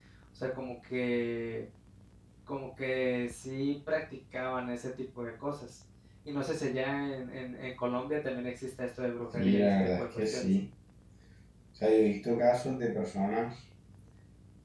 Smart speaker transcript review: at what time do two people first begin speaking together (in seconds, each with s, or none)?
9.3 s